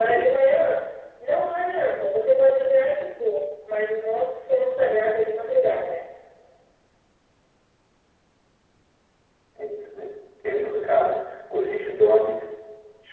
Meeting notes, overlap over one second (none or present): none